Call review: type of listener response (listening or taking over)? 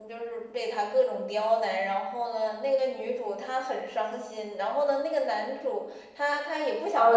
taking over